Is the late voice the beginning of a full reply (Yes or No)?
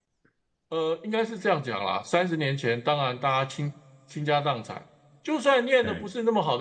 No